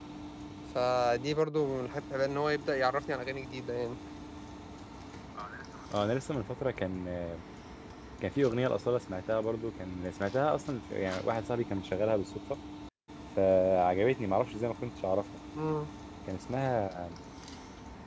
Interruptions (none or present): none